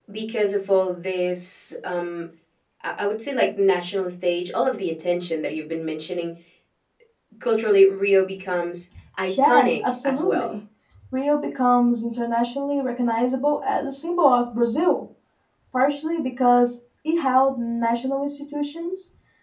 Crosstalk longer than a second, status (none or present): present